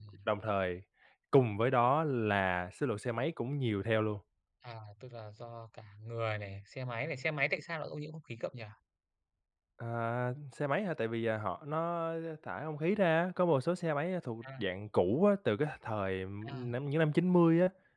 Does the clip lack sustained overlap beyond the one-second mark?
Yes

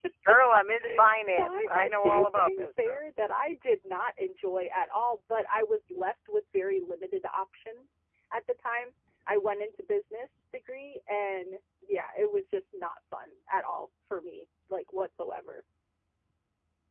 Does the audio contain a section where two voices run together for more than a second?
Yes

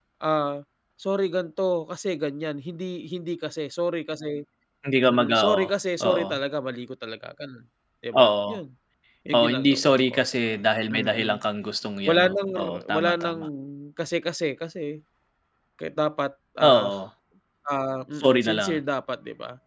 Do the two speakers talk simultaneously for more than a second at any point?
Yes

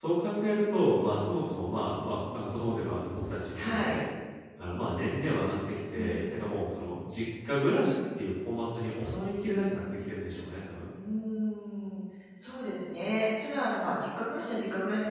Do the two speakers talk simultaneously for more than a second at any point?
No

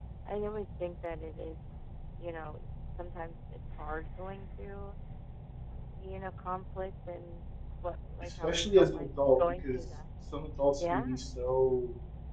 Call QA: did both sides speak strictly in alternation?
No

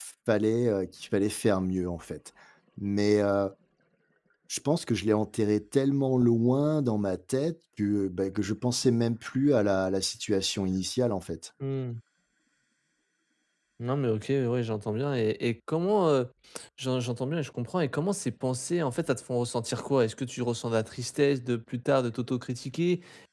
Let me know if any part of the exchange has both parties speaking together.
No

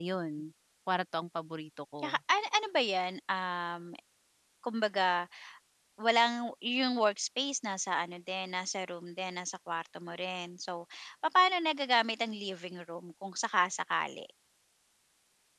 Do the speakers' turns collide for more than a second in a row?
No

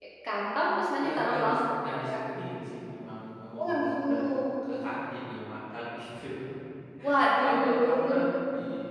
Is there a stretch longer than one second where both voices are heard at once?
Yes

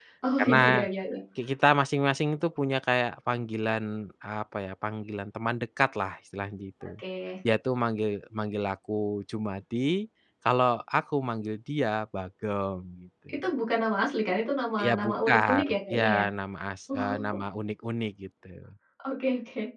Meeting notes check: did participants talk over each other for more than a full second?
Yes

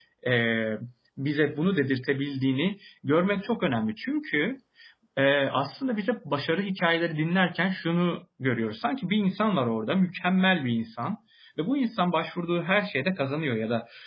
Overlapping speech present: No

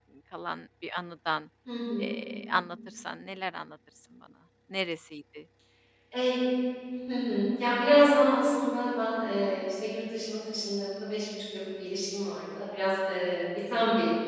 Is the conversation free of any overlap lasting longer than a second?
Yes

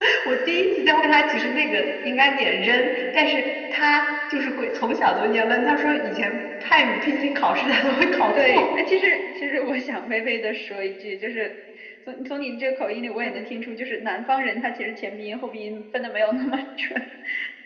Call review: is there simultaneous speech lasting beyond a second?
No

